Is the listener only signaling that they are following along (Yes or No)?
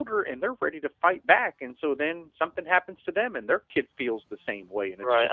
No